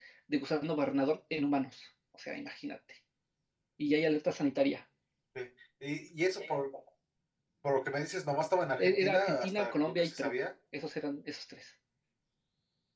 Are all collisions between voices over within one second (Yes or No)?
No